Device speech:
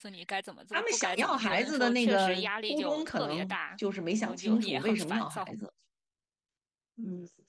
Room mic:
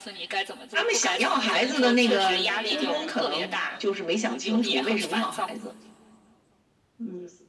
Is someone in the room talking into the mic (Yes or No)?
Yes